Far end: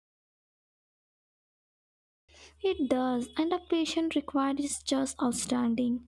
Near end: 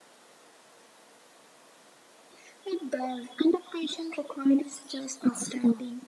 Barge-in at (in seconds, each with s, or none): none